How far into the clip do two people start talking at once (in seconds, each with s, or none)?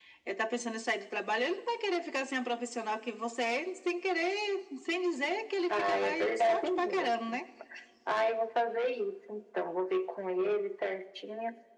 5.7 s